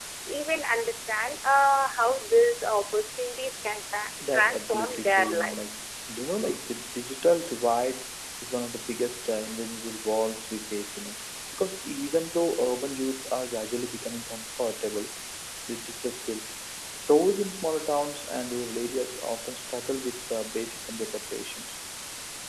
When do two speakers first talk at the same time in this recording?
4.3 s

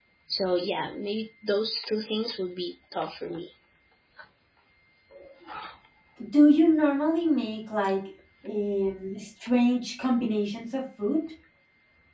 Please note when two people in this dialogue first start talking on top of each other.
none

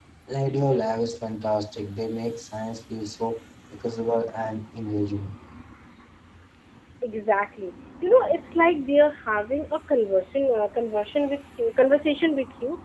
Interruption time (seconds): none

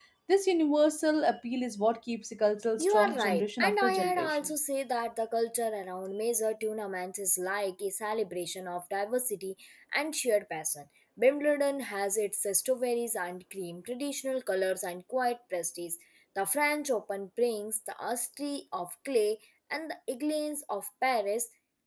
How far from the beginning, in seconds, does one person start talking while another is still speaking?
2.8 s

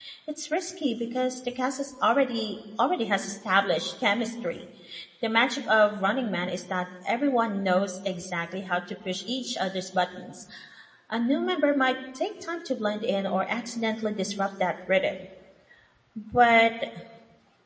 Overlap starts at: none

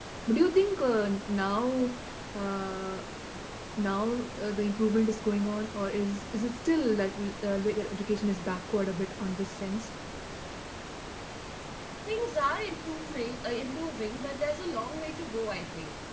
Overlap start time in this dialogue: none

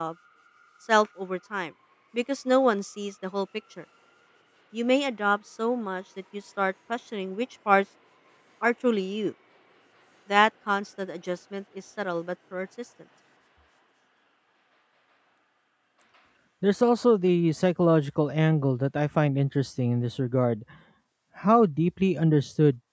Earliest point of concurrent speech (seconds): none

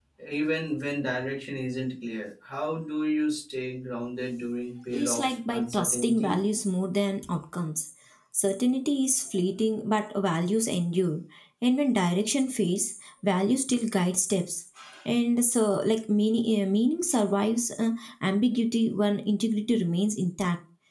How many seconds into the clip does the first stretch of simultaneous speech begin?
4.9 s

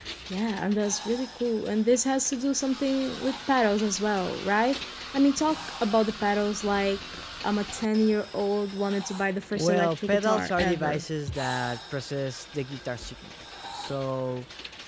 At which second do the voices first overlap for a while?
9.5 s

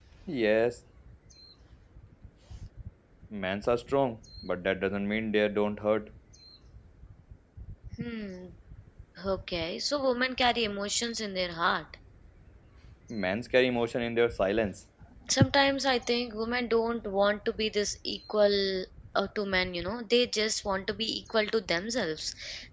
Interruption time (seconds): none

